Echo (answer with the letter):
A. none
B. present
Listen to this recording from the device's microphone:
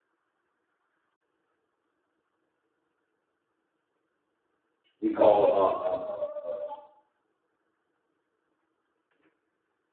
A